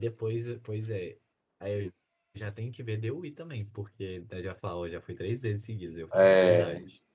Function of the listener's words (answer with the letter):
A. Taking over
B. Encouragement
A